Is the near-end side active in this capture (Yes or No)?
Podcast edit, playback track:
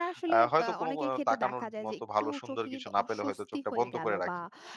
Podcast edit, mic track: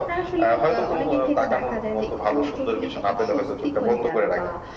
No